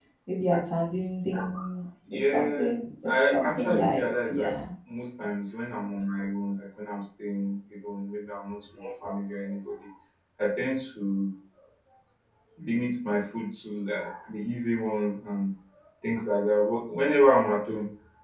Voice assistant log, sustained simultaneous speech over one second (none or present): present